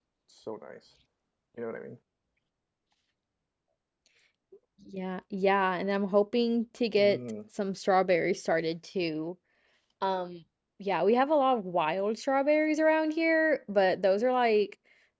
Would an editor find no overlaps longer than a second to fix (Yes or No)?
Yes